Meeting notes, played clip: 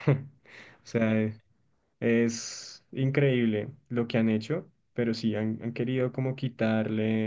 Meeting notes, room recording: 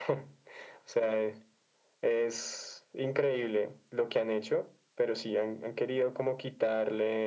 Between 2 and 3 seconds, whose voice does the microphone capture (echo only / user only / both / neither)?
echo only